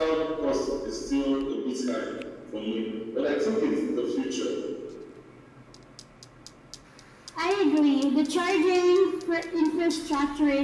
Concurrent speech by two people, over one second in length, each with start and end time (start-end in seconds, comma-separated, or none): none